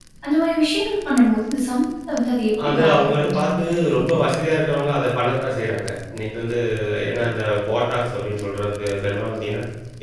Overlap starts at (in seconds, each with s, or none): 2.6 s